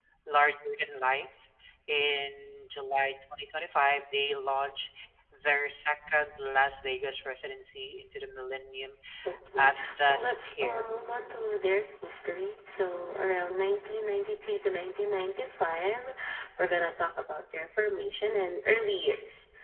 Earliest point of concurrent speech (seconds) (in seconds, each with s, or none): 9.6 s